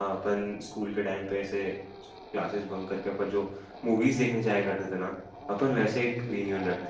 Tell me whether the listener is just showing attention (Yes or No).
Yes